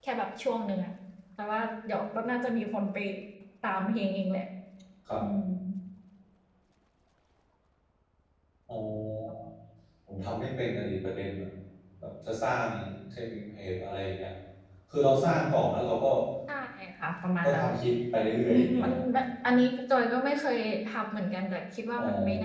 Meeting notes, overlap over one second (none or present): none